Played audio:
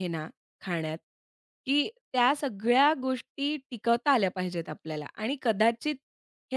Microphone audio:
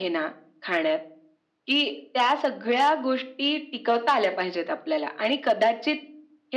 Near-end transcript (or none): none